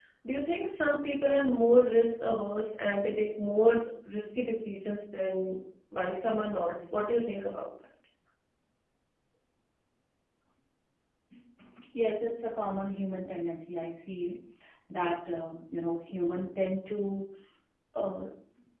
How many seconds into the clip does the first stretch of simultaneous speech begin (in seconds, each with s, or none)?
none